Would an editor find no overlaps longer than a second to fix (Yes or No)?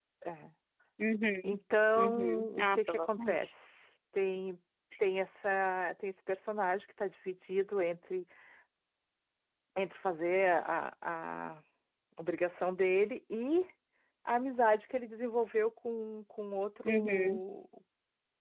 No